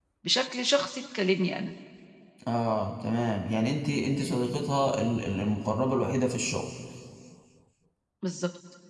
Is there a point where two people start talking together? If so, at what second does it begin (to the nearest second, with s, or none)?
none